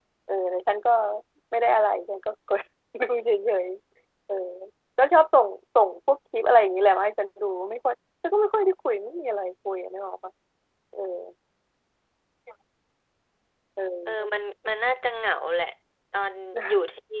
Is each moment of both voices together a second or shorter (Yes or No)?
Yes